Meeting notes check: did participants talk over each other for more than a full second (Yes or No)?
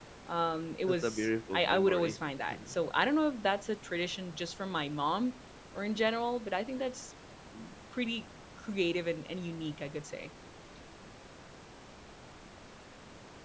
Yes